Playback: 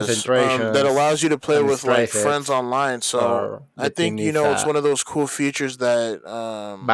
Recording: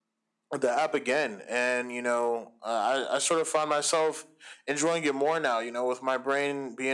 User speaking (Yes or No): Yes